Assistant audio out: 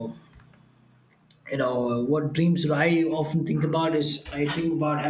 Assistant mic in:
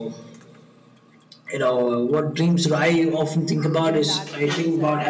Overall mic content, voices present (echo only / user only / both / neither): both